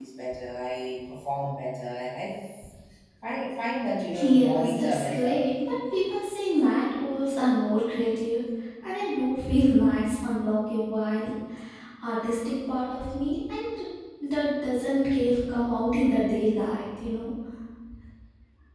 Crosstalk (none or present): present